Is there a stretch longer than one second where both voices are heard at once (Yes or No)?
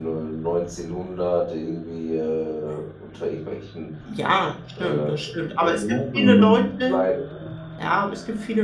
Yes